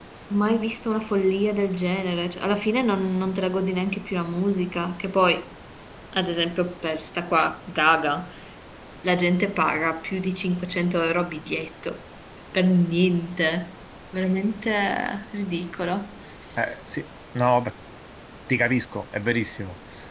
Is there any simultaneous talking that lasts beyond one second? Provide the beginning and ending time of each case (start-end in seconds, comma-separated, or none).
none